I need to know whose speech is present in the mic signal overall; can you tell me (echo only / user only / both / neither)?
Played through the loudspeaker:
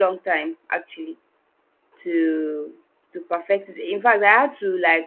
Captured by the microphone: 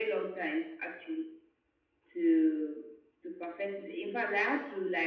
echo only